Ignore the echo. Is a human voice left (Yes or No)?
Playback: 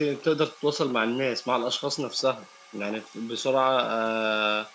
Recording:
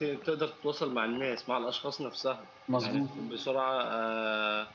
Yes